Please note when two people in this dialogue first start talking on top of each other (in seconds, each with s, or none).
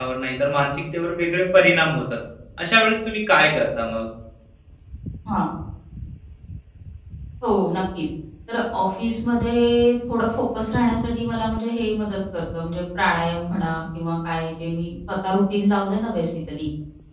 none